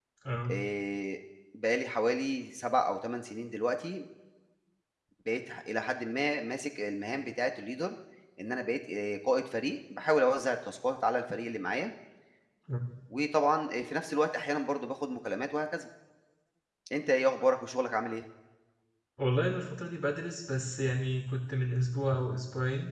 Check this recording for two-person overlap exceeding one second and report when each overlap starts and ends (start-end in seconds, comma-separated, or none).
none